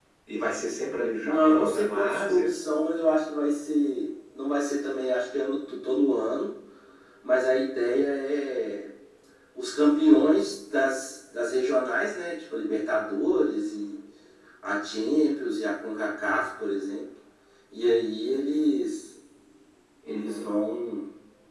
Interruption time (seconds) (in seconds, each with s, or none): 1.2 s